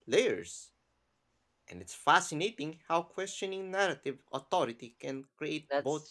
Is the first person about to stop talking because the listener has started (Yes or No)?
Yes